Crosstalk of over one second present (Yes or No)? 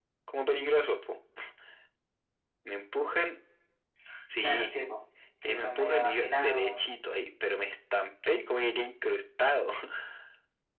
Yes